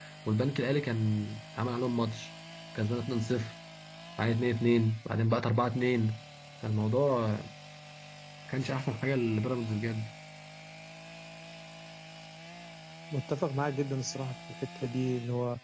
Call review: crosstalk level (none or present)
none